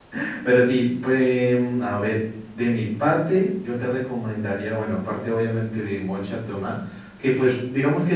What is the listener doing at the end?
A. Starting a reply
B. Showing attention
B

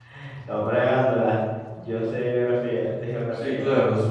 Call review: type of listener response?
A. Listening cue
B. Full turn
B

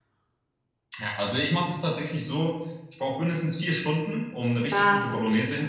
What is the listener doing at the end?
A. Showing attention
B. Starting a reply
A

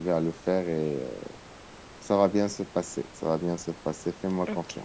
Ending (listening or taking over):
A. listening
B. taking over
B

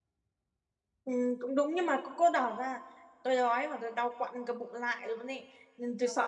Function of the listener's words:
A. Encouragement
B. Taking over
A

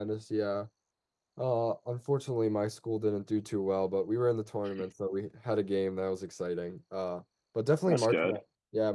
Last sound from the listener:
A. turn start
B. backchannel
B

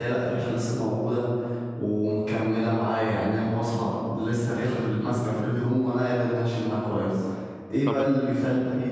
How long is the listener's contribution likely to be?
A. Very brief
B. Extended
A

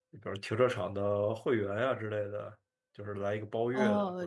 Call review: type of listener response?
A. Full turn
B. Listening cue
A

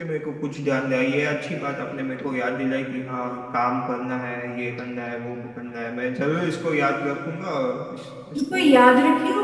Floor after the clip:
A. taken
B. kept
A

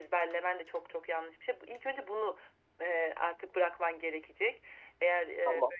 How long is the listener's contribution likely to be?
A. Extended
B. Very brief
B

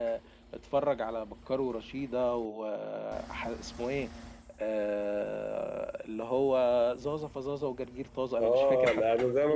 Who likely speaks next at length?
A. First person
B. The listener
B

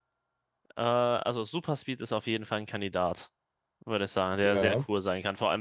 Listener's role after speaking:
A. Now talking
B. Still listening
B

